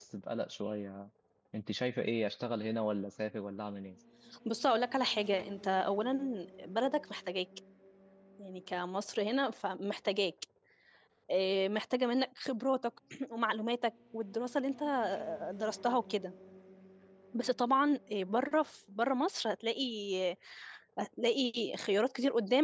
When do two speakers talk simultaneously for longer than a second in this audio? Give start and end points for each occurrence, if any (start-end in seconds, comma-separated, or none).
none